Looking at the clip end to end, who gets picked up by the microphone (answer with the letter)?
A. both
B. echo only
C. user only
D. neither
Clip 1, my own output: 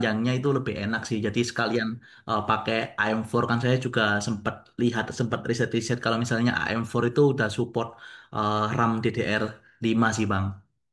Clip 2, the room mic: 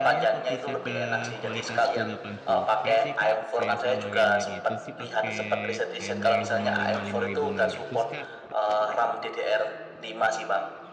A